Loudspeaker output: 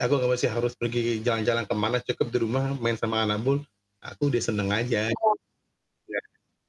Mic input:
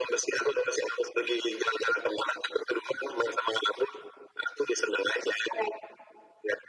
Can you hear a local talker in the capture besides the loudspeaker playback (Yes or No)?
No